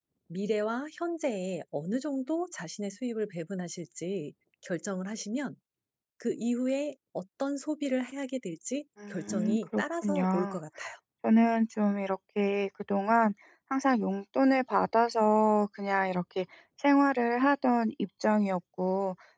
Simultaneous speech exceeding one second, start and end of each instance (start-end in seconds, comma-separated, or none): 9.1-10.6